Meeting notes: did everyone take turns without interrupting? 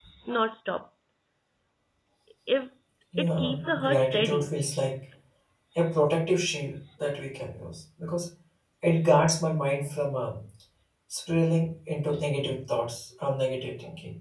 No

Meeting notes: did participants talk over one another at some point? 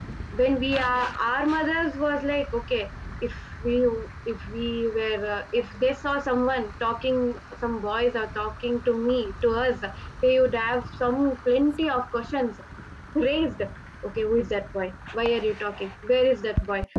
No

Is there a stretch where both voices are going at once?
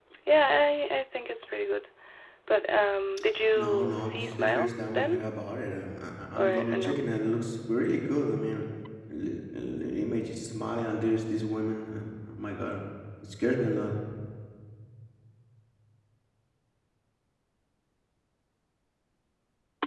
Yes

